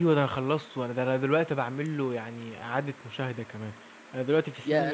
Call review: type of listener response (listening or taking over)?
listening